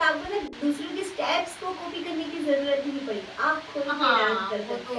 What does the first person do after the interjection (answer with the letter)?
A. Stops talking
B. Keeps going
A